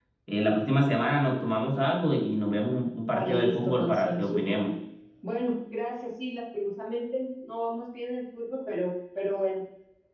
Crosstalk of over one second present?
Yes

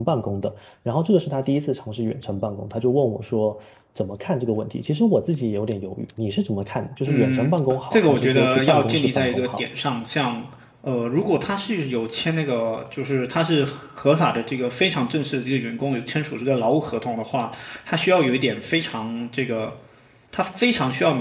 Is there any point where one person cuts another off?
Yes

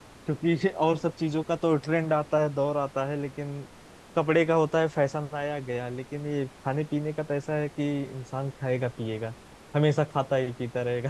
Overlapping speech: No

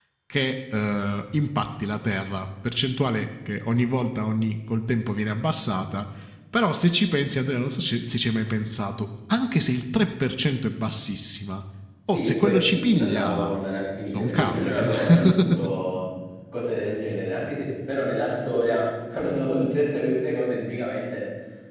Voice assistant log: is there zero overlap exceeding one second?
No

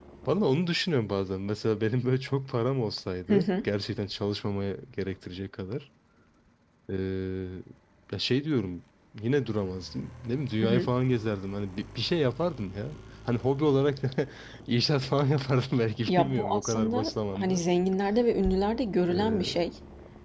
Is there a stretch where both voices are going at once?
Yes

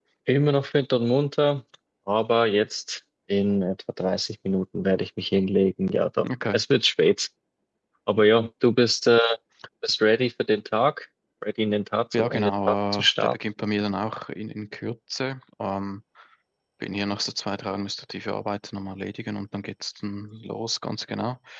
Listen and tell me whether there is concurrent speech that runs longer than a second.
Yes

